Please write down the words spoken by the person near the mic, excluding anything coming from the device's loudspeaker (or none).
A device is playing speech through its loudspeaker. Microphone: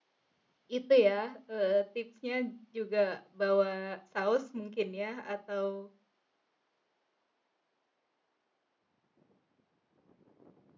itu ya, eee, tipsnya juga bawa saus mungkin ya, atau,